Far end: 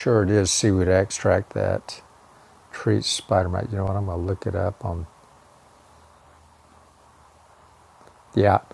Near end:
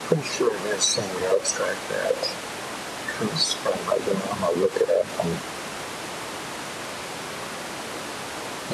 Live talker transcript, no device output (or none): none